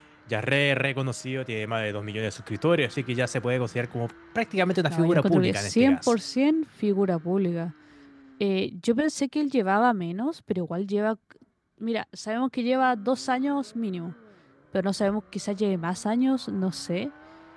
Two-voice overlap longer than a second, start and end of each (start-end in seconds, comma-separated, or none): 4.9-6.2